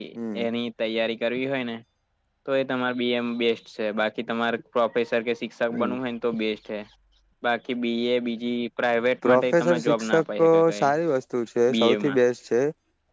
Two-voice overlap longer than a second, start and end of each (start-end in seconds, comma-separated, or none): 9.2-10.9